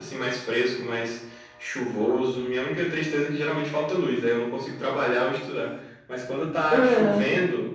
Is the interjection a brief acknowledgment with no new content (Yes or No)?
Yes